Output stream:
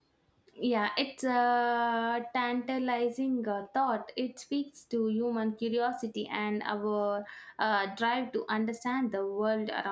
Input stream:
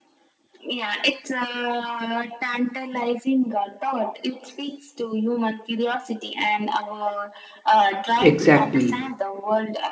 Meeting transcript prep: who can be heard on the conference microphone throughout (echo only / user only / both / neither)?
both